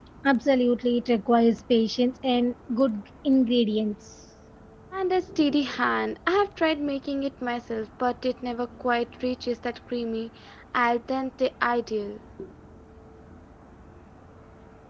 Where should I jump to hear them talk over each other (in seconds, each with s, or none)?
none